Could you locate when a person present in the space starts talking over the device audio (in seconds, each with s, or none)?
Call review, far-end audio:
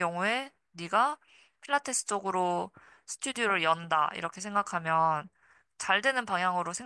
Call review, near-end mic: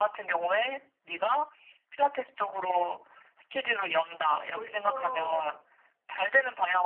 4.2 s